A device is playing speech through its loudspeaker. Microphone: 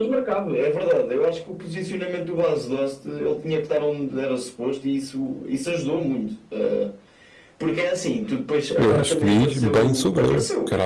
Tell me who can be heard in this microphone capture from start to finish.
both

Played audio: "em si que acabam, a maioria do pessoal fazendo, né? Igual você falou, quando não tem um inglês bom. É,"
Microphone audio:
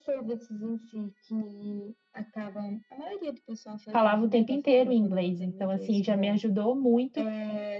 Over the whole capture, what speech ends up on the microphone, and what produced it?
both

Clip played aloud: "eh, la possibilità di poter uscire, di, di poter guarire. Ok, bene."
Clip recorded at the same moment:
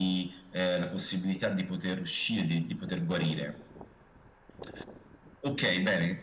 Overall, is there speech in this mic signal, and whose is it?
echo only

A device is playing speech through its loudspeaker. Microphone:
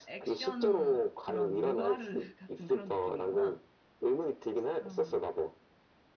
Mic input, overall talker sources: both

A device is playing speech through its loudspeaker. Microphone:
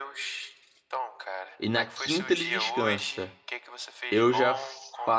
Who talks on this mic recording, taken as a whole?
both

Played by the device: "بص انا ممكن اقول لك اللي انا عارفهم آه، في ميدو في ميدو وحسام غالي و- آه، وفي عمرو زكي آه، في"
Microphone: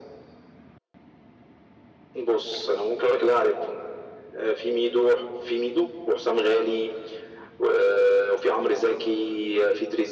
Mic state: echo only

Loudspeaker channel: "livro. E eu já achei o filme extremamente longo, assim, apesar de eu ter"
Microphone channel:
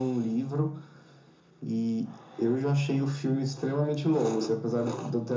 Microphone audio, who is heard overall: echo only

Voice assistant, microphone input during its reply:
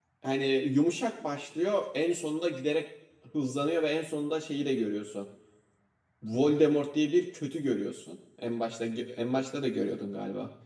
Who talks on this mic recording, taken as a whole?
user only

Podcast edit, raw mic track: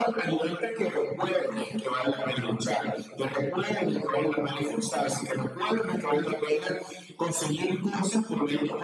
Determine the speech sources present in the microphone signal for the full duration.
echo only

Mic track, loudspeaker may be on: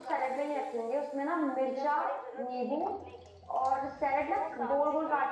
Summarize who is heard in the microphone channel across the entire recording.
both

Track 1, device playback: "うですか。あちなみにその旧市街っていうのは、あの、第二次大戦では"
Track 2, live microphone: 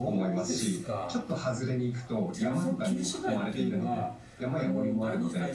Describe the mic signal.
both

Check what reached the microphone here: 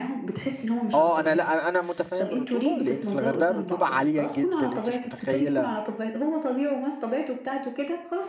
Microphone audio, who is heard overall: both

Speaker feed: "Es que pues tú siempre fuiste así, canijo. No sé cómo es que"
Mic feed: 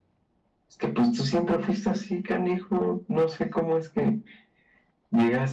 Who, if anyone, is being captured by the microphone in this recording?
echo only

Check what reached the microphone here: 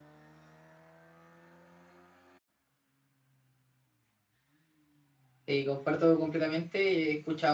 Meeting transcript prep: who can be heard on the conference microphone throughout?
user only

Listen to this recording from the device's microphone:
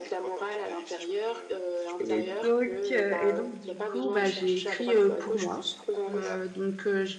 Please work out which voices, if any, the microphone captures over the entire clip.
both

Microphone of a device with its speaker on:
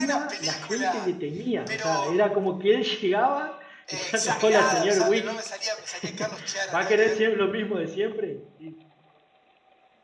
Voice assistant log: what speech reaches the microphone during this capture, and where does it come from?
both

